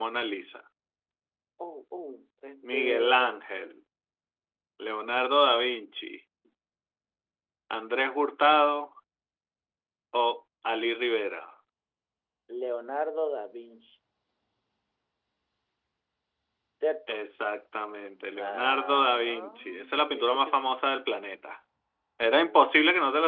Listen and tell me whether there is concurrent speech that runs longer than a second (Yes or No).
Yes